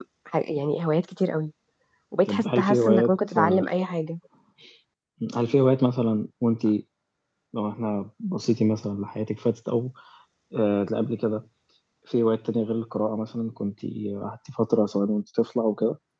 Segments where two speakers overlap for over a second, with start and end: 2.3-3.6

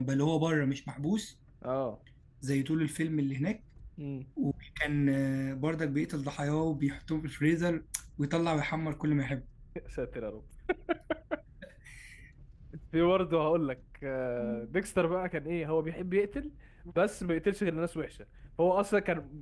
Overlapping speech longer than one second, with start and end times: none

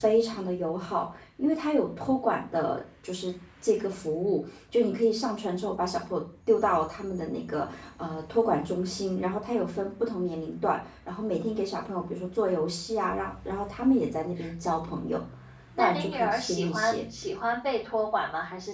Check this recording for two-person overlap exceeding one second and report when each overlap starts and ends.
15.8-17.0

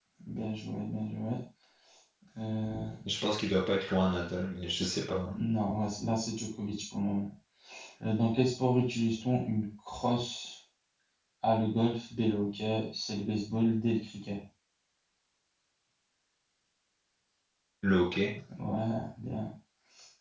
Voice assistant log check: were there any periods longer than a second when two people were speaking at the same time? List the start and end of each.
none

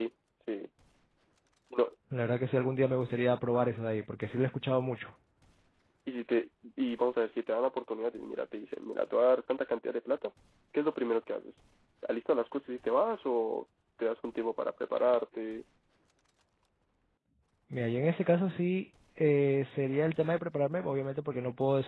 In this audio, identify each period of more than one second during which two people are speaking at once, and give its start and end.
none

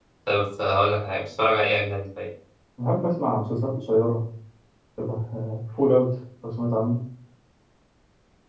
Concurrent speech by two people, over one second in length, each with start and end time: none

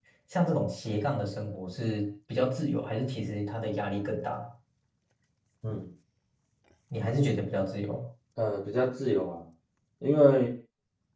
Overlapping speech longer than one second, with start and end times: none

